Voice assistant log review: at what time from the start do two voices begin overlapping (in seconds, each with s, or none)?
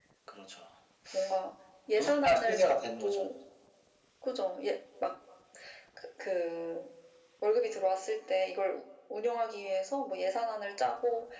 1.9 s